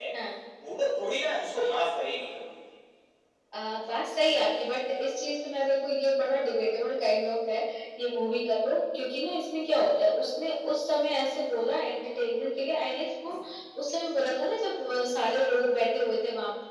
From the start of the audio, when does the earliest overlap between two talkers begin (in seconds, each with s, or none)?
none